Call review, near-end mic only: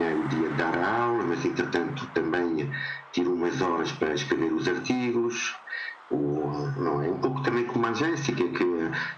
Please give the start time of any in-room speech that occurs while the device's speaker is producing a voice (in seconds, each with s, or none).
none